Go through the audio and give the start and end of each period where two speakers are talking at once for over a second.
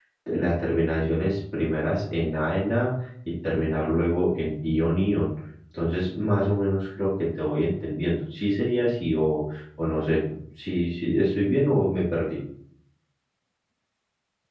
none

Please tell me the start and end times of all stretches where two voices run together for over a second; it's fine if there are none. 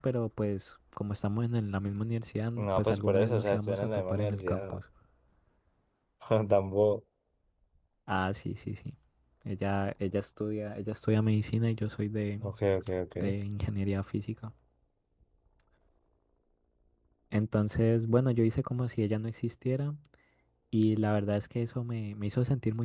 2.6-4.8

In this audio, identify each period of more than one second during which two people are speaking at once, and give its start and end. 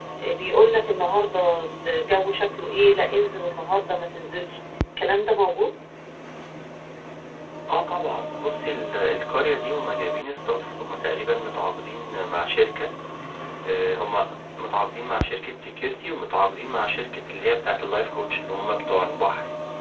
none

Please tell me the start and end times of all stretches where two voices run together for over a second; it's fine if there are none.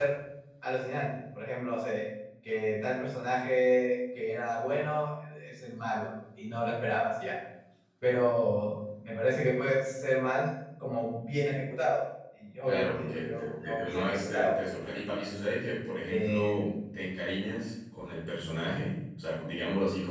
12.6-14.5

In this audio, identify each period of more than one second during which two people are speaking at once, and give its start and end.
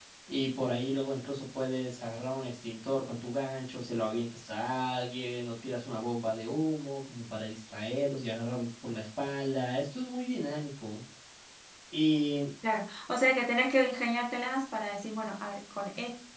none

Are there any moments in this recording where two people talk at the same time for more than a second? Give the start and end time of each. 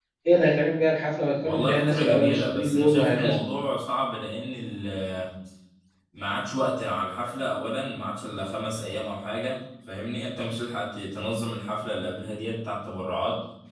1.4-3.4

